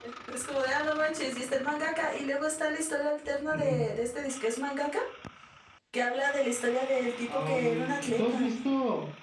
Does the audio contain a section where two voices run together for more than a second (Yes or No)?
Yes